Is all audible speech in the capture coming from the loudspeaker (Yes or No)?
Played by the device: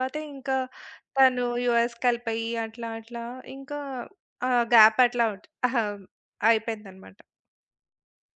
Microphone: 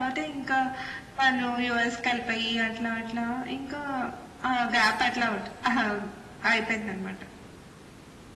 Yes